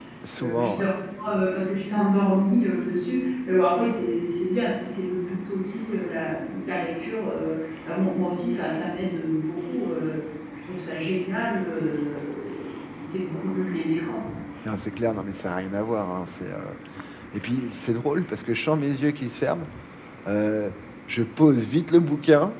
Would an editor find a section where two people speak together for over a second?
No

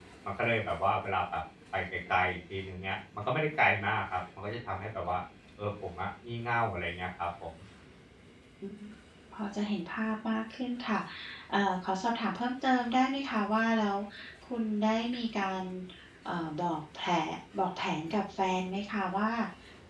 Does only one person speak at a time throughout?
Yes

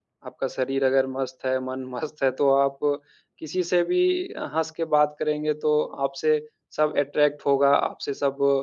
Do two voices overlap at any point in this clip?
No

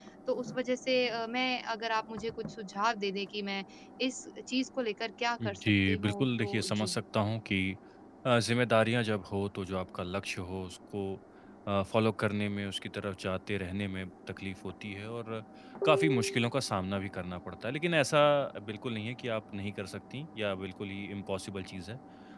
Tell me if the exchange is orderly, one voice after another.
No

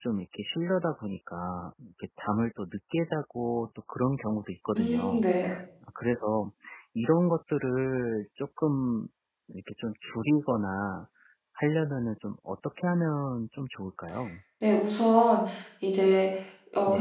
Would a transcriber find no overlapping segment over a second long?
Yes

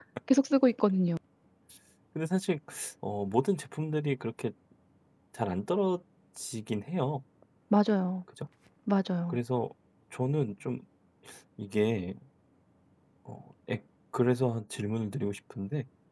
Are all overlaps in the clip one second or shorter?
Yes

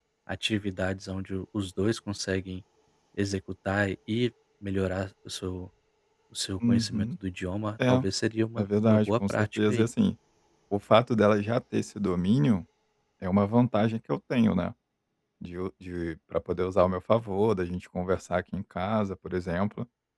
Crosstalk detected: Yes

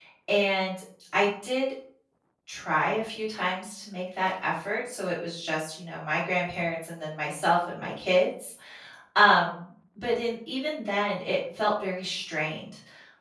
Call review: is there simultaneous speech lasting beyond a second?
No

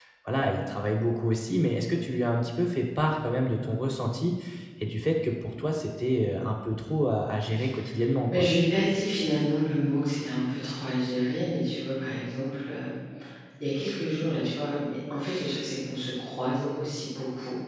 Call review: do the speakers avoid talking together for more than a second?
Yes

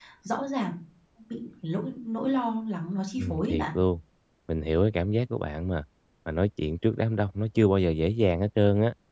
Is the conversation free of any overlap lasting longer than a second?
Yes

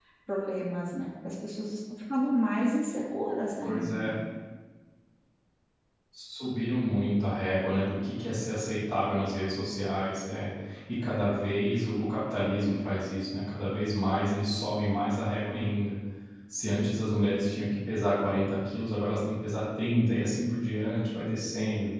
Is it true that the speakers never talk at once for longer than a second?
Yes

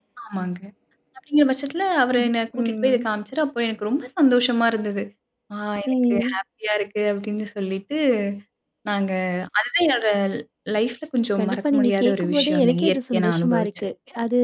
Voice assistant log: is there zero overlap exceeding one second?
No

